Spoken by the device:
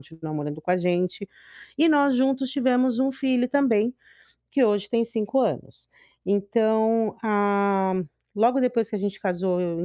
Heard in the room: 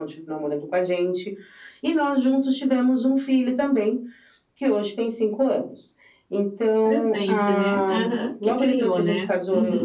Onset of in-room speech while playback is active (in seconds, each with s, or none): 6.8 s